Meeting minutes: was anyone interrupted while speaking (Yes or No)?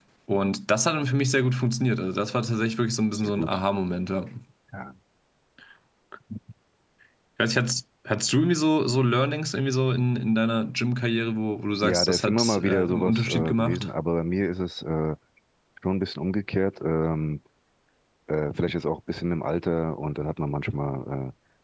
Yes